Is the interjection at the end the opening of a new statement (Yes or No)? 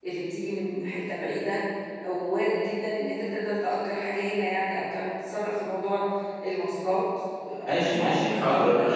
Yes